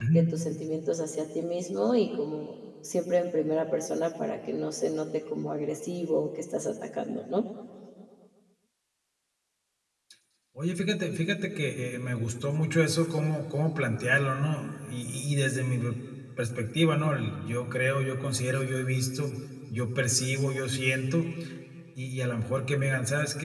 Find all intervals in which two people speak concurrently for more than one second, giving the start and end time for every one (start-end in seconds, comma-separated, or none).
none